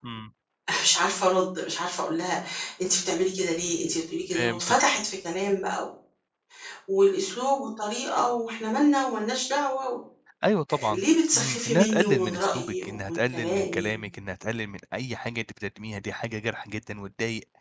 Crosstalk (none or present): present